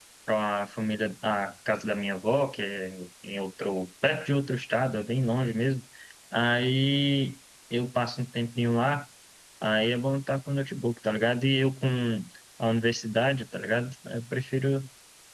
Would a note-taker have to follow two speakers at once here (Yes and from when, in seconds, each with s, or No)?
No